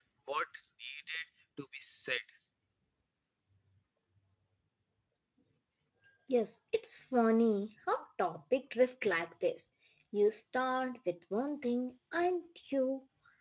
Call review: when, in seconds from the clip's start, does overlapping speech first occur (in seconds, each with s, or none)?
none